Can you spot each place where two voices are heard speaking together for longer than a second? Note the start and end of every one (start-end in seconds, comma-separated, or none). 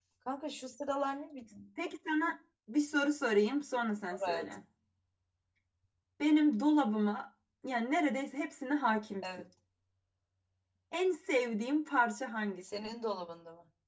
none